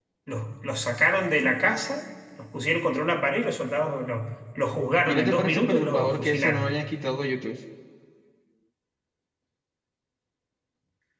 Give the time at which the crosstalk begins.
5 s

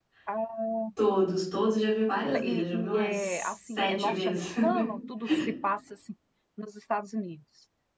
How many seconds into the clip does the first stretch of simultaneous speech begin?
2 s

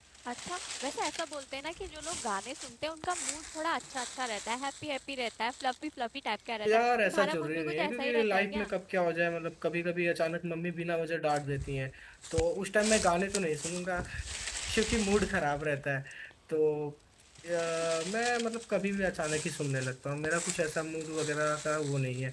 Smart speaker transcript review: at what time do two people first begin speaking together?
7 s

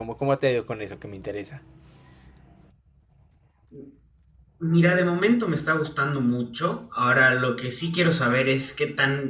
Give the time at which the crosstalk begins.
none

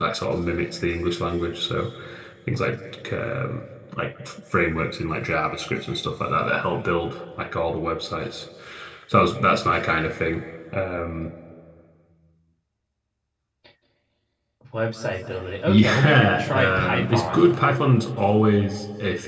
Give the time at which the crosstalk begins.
16 s

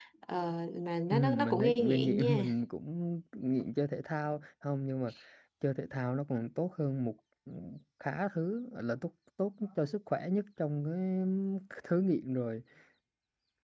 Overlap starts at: 1 s

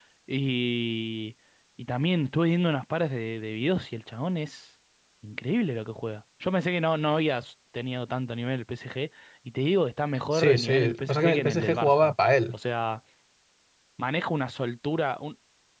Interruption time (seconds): 10 s

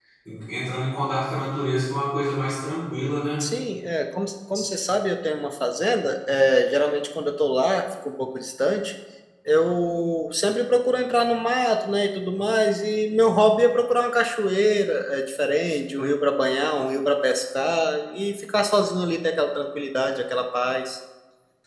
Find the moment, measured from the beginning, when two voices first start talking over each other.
none

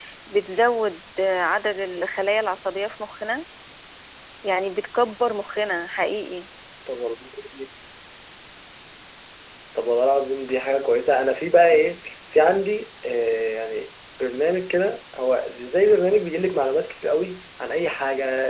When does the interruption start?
none

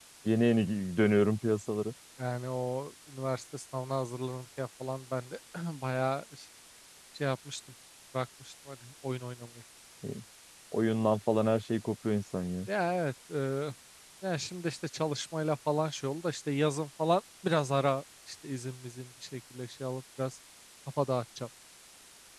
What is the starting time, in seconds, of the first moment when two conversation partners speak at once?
none

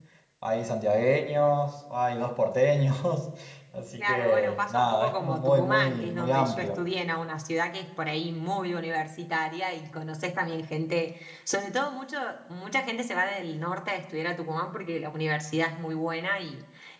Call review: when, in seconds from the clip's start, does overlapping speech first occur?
4 s

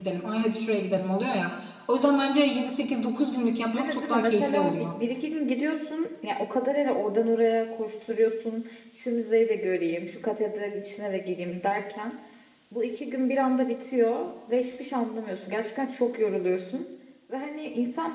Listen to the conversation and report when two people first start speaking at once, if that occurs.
4 s

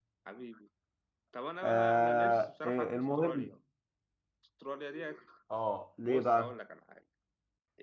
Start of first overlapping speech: 2 s

